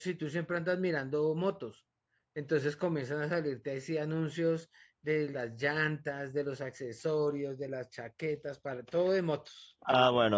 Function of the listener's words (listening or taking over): taking over